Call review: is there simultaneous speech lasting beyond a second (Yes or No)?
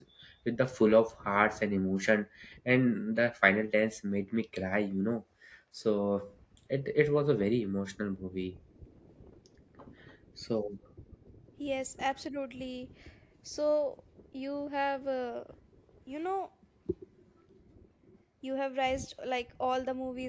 No